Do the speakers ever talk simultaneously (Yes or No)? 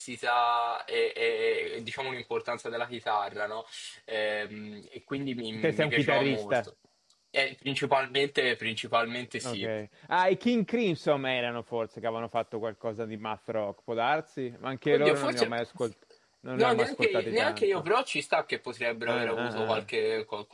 Yes